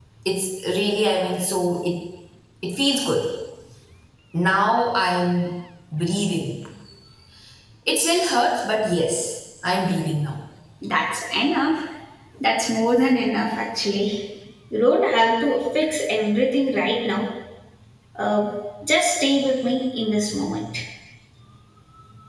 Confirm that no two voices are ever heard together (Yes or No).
Yes